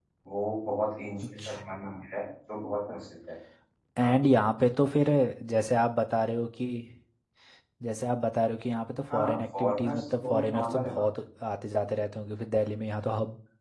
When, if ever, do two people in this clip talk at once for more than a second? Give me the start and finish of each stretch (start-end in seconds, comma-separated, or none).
9.1-11.1